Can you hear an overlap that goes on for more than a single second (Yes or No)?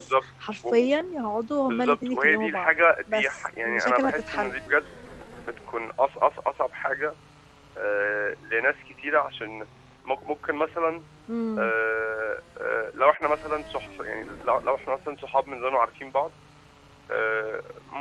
Yes